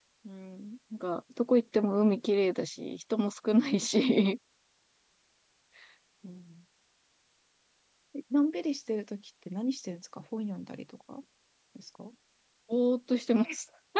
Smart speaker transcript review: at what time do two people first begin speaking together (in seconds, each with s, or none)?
none